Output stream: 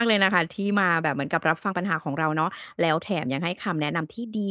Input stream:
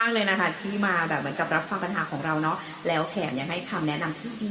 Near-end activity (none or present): none